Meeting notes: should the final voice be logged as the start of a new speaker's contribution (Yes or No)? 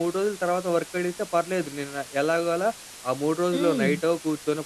No